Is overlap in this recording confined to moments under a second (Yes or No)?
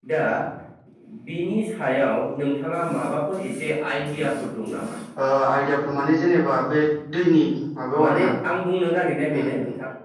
Yes